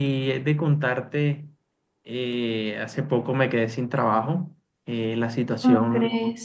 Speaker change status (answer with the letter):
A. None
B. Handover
A